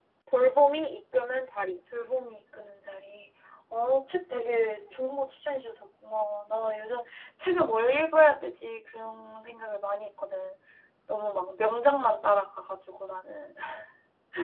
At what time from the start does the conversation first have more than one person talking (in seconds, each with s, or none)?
none